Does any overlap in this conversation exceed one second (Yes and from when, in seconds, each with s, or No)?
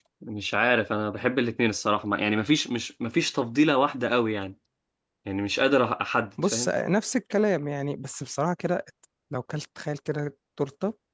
No